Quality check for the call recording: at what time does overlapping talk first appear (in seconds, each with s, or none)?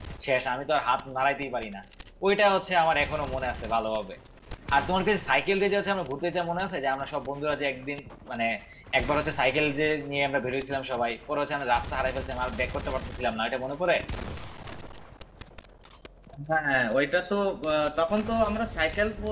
none